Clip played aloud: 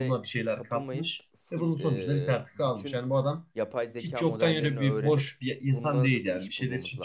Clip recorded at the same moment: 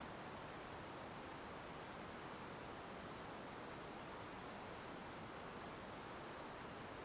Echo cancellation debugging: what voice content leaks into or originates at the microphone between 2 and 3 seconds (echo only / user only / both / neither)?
neither